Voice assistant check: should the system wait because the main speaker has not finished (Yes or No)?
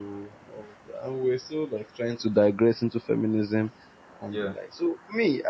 Yes